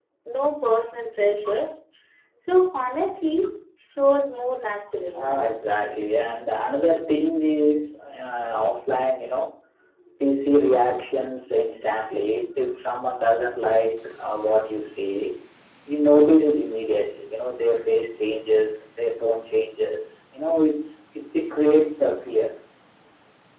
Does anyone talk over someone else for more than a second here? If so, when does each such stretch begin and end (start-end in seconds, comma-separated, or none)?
none